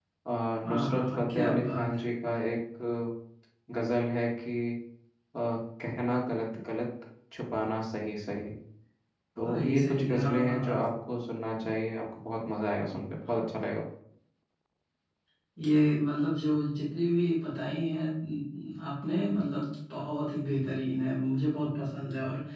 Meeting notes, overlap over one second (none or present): present